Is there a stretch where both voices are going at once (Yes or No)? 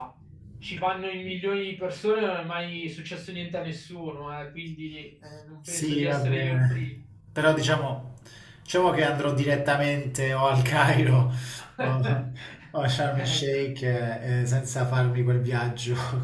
Yes